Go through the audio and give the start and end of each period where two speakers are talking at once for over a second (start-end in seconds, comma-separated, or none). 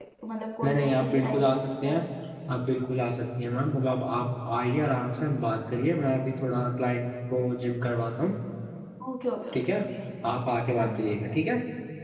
0.6-1.9